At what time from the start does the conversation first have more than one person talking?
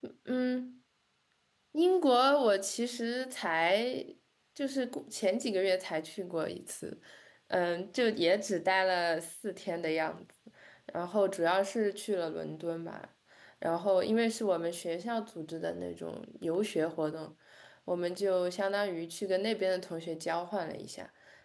none

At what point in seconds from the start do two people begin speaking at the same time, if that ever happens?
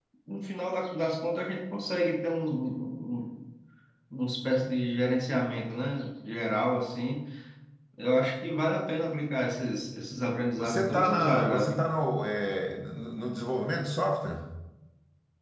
10.6 s

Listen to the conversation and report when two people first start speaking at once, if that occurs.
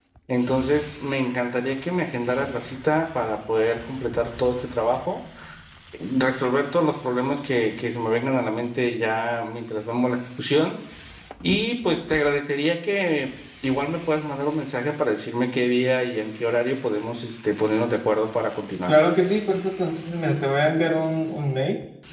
none

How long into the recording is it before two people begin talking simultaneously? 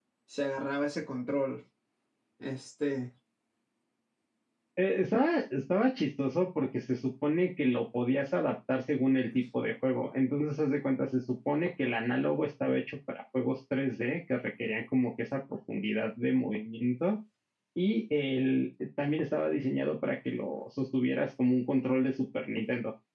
none

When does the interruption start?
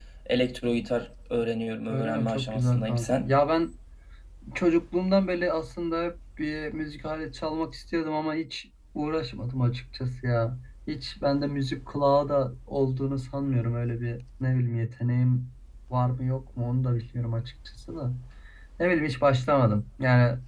1.9 s

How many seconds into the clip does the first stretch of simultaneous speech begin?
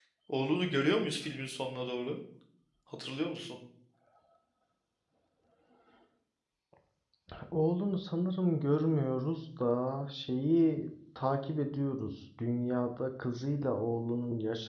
none

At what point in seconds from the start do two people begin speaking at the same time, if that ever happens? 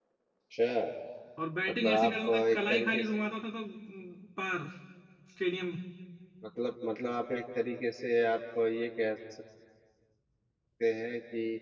1.7 s

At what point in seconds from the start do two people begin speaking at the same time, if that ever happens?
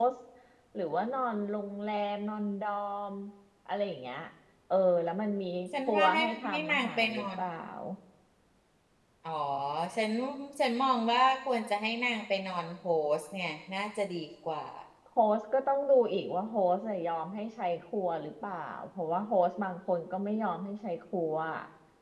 5.7 s

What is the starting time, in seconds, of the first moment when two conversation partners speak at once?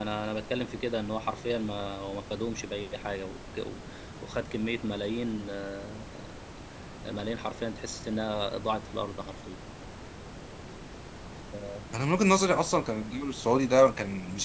none

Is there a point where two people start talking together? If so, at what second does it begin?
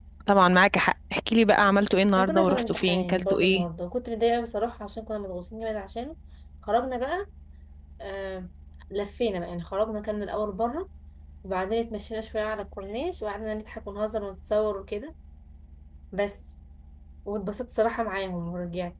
2.2 s

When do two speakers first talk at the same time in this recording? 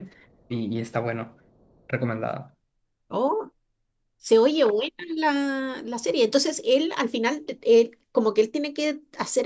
none

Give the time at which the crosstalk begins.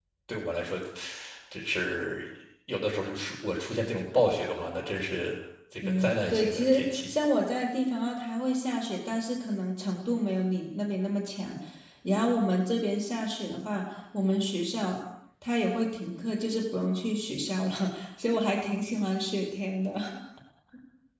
5.8 s

